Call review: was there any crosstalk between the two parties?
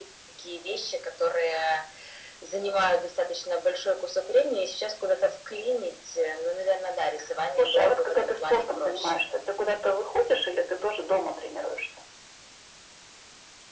Yes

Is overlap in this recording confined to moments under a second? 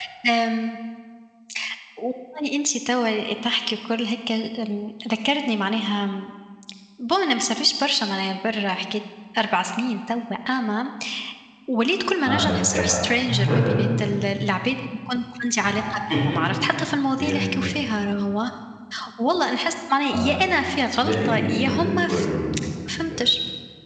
No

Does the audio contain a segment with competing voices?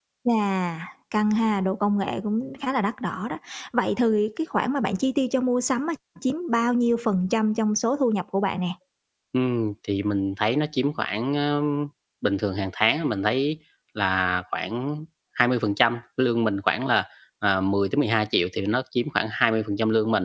No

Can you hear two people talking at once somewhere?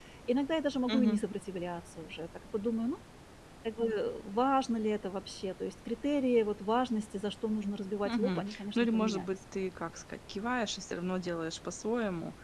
Yes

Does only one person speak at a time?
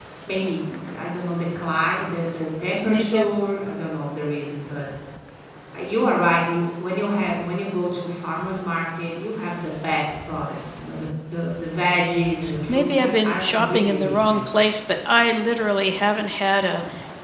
No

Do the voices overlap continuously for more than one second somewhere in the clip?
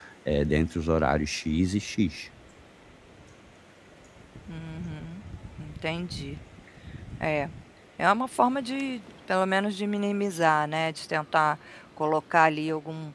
No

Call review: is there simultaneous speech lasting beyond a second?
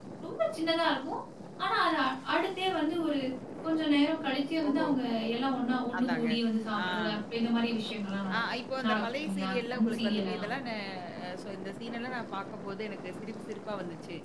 Yes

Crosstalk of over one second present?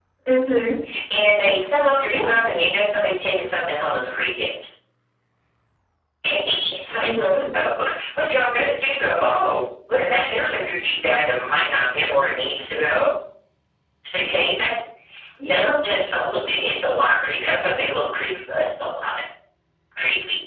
No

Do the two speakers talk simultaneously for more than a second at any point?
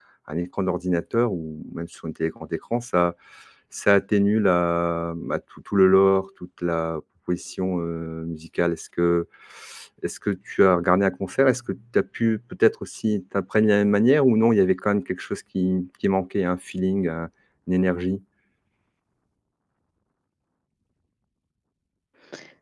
No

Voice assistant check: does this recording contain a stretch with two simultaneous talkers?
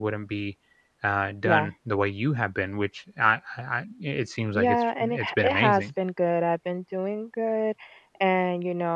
Yes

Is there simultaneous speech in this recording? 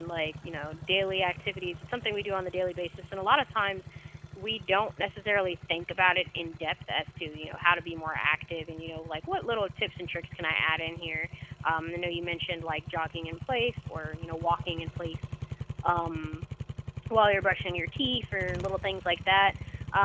No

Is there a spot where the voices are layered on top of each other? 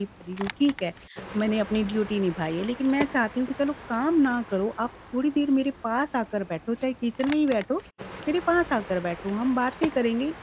No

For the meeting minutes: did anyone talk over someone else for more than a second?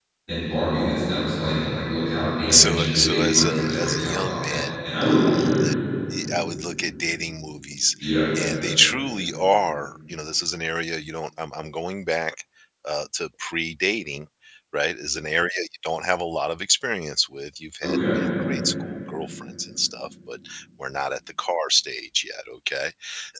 Yes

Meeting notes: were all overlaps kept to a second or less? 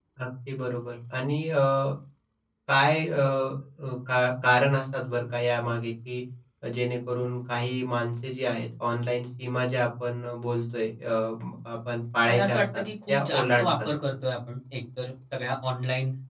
No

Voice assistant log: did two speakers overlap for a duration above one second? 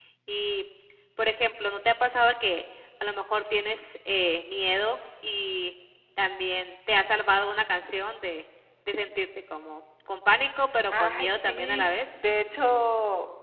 Yes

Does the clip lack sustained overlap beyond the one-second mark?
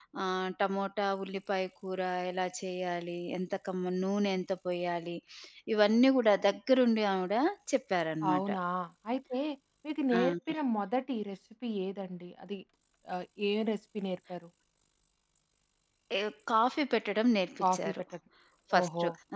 Yes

